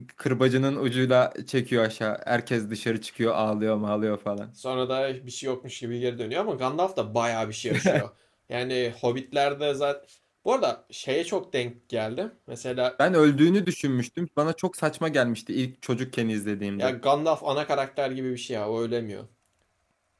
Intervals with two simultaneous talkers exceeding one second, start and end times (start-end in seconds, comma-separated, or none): none